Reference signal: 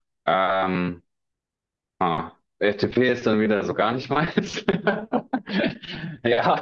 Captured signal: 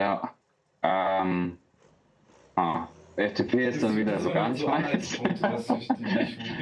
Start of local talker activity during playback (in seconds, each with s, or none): 3.4 s